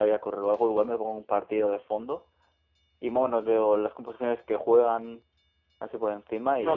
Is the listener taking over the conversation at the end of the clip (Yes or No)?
Yes